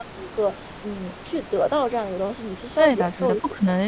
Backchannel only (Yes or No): No